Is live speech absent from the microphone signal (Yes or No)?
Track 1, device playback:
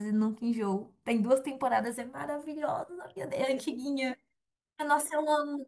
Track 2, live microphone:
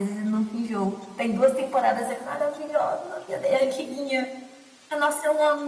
Yes